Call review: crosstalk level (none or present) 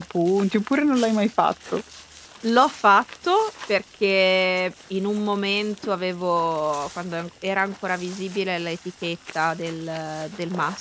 none